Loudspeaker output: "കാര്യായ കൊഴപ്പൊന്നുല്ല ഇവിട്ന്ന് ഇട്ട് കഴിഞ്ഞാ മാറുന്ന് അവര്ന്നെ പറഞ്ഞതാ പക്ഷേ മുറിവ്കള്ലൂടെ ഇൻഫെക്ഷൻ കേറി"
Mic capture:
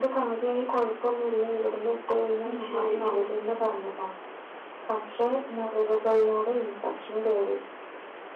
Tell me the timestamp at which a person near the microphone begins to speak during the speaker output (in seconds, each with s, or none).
2.5 s